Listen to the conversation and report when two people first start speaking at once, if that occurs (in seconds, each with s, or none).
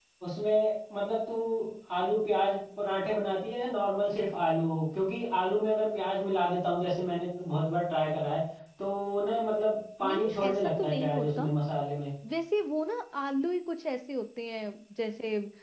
10.0 s